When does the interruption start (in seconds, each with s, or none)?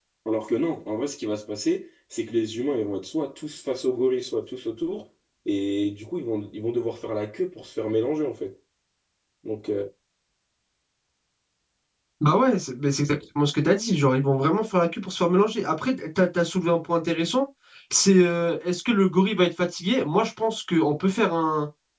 none